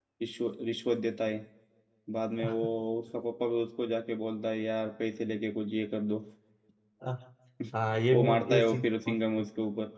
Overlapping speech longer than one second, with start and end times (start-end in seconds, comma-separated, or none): 8.1-9.4